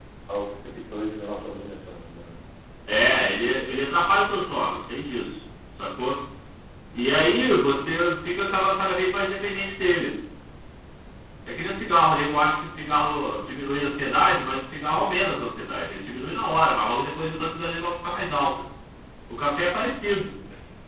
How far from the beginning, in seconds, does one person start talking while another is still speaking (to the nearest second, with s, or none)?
none